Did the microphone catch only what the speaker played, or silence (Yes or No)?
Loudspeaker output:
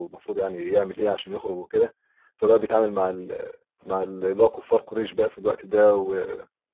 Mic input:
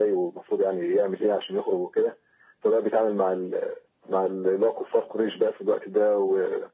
Yes